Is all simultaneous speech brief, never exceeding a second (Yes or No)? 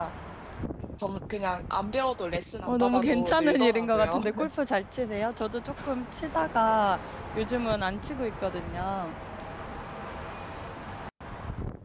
No